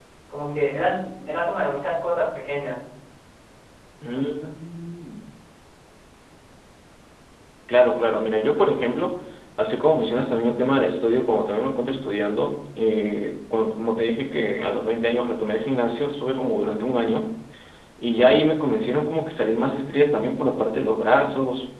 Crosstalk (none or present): none